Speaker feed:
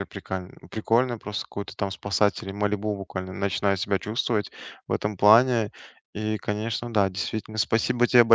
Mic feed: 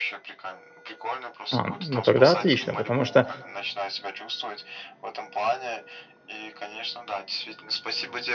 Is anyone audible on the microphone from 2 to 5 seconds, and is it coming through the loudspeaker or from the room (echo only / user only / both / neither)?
both